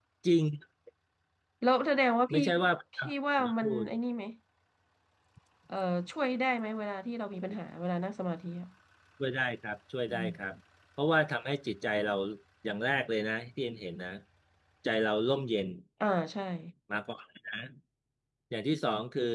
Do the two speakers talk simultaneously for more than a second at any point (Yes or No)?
No